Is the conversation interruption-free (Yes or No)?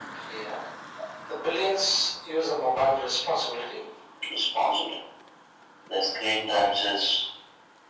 Yes